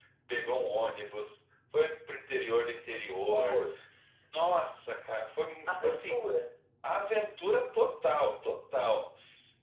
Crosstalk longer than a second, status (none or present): none